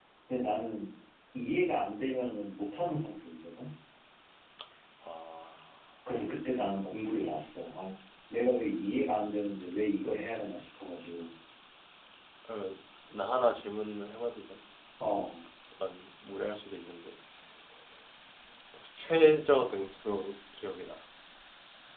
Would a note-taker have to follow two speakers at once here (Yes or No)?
No